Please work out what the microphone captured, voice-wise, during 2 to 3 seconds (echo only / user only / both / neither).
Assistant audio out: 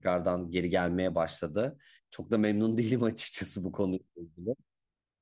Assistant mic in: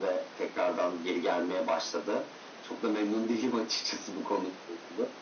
echo only